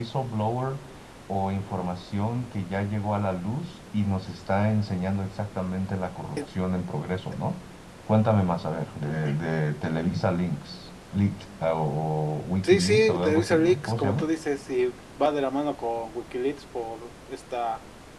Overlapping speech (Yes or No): Yes